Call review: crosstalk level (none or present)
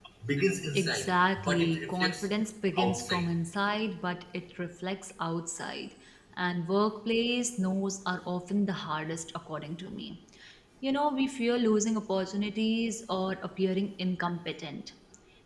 present